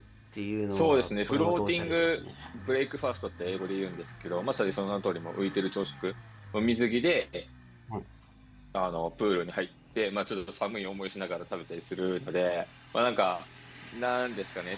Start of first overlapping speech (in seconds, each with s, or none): 0.7 s